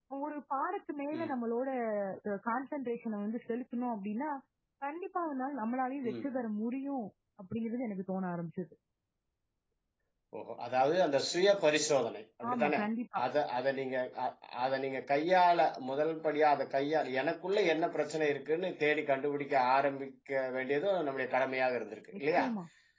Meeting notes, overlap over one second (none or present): none